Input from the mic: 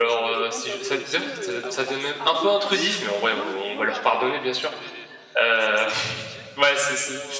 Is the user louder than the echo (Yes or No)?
Yes